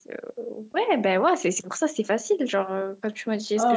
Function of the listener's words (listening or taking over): taking over